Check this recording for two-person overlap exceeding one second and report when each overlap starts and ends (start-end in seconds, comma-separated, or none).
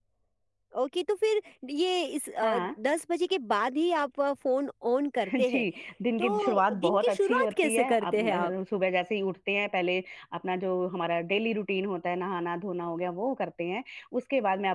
6.2-8.5